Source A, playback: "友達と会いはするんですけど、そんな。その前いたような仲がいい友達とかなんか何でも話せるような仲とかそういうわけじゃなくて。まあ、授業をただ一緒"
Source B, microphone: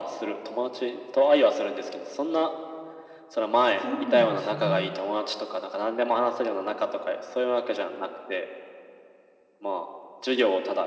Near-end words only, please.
そうなんですね。

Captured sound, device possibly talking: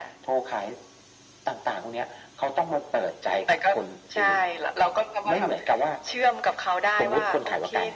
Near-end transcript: none

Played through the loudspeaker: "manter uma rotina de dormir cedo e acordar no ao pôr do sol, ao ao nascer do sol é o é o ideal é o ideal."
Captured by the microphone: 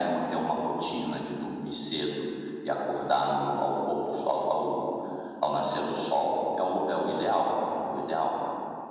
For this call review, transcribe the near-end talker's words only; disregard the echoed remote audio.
none

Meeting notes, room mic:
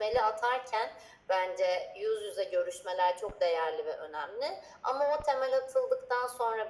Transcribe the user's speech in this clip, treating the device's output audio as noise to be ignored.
none

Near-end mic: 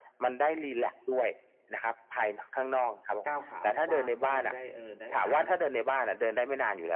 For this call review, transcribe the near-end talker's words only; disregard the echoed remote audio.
ก้าวขากว้าง ๆ มั่ง ได้ เออ ได้ อา

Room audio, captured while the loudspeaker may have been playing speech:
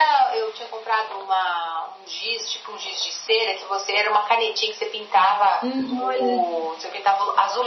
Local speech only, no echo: Hum. Olha, só.

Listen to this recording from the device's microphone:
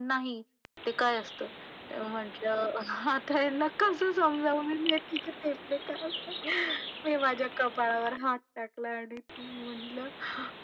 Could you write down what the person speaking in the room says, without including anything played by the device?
none

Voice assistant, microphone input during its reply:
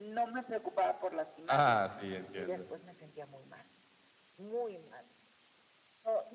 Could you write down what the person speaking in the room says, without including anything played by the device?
¡Ah!, sí, entiendo.

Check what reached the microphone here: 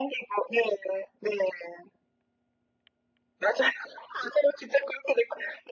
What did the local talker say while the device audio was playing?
none

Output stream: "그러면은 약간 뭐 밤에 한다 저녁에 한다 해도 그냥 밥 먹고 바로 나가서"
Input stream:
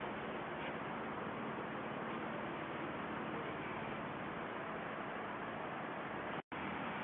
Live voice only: none

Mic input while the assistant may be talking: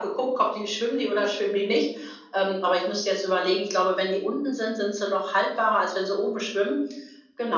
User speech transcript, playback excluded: none

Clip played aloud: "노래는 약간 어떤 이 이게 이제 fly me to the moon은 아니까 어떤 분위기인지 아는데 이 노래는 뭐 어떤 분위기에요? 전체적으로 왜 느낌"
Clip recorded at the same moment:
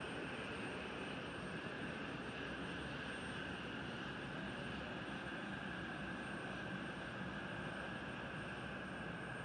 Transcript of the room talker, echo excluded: none

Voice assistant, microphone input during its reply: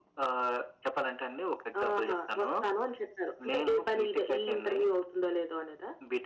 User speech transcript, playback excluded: none

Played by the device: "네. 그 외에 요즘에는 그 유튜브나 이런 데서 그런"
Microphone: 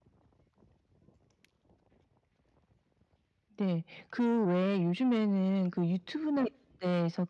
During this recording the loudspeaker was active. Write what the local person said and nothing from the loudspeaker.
none

